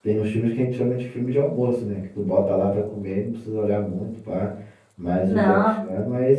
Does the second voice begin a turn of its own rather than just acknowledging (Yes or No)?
No